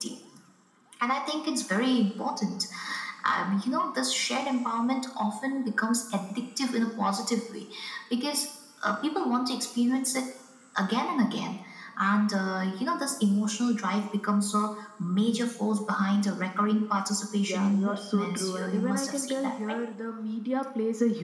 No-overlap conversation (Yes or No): No